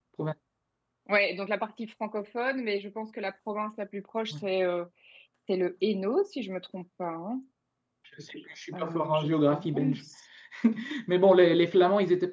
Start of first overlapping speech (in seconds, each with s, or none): 8.7 s